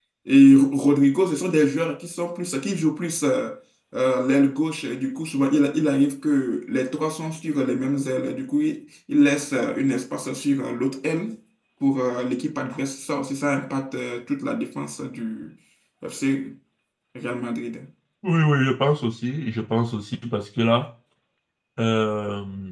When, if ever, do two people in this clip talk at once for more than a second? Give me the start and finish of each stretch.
none

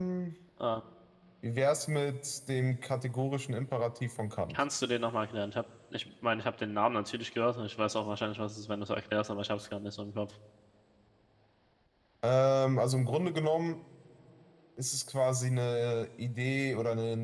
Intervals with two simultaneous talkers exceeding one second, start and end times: none

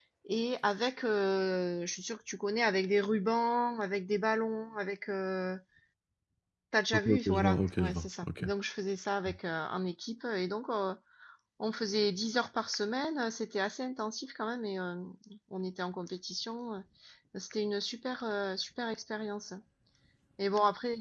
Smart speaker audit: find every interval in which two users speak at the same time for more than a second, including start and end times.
6.9-8.4

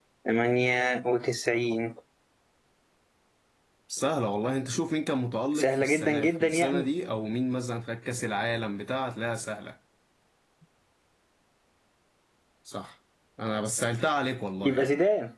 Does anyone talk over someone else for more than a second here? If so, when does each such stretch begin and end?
5.6-6.9

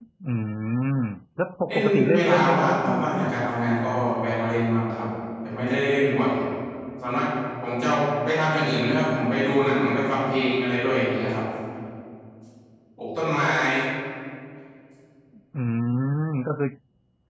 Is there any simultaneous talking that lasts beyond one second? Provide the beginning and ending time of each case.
1.7-3.5

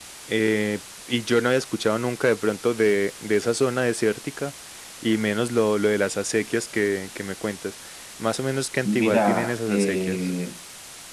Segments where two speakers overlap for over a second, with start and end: 8.8-10.2

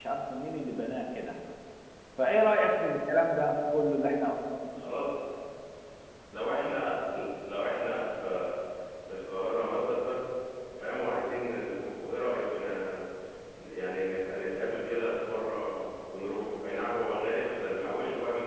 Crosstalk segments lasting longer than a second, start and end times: none

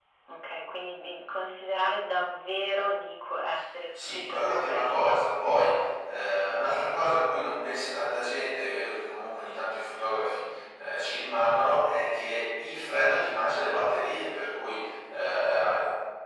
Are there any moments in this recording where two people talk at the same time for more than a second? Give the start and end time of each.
4.0-5.2

